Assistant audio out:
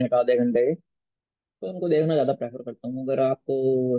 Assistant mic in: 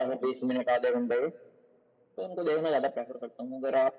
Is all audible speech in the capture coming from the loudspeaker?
Yes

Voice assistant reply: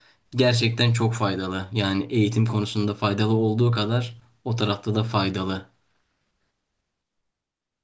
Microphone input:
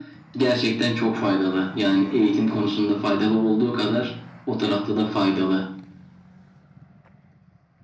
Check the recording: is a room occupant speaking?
No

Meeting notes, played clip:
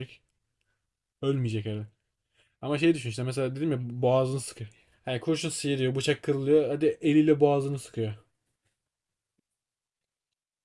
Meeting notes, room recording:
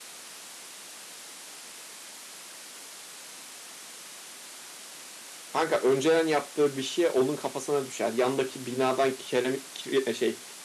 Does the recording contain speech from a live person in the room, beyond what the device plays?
Yes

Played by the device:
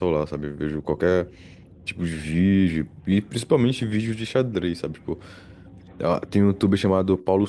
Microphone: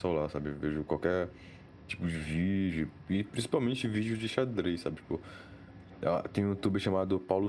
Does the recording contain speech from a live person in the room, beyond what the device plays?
No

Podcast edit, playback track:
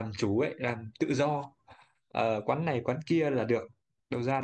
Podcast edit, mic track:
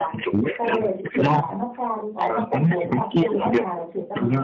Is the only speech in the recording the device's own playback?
No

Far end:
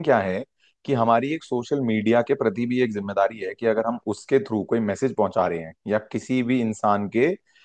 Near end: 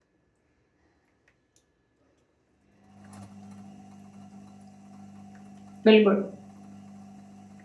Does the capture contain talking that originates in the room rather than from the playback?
Yes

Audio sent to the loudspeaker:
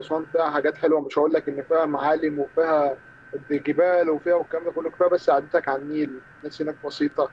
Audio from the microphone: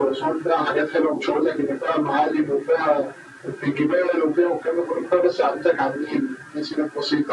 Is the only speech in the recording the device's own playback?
Yes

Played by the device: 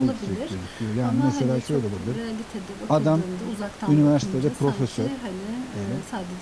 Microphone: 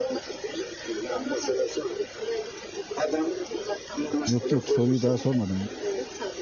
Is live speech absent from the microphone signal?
No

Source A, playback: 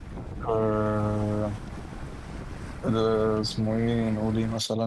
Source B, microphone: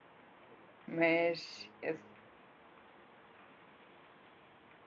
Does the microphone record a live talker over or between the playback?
Yes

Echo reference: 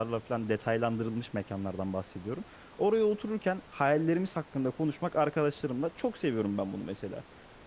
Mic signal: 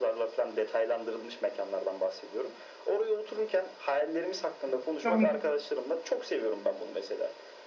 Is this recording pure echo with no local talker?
No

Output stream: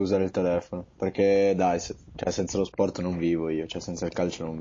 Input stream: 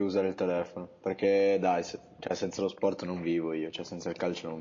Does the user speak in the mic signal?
No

